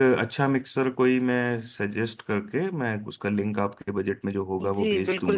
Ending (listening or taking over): taking over